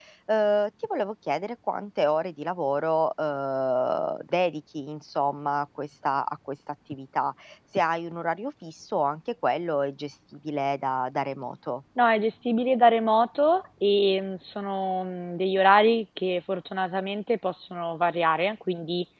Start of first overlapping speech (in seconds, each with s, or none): none